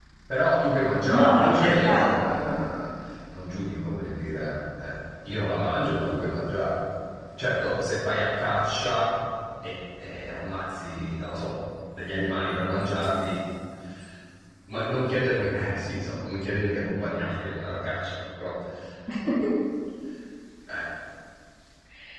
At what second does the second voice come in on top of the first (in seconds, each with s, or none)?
1.1 s